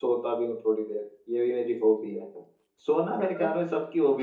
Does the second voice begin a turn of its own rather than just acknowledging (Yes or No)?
No